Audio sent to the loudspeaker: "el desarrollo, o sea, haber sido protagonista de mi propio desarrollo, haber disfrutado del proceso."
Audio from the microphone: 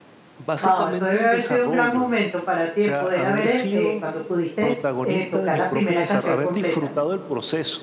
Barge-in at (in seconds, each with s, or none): 0.6 s